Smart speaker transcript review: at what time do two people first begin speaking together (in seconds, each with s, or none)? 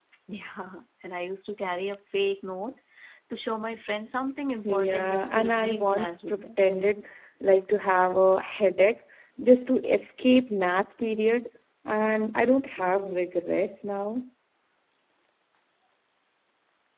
4.6 s